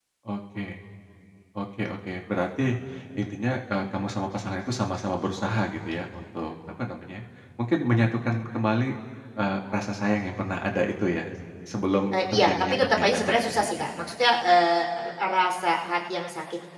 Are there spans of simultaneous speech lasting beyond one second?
Yes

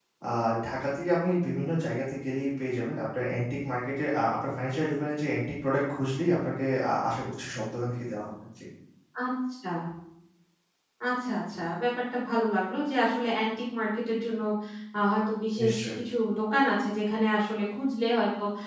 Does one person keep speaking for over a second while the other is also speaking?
No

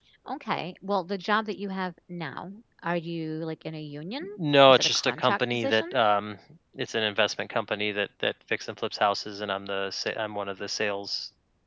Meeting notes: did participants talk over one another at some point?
Yes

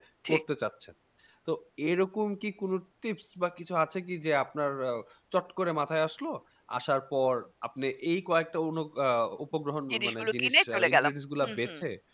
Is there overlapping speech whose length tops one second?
Yes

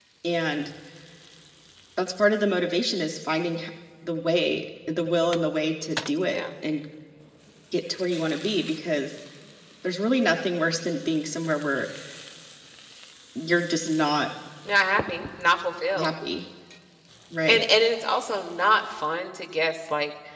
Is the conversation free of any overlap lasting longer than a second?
Yes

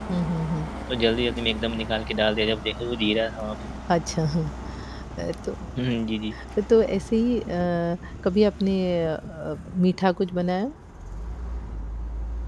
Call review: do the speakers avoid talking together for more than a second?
Yes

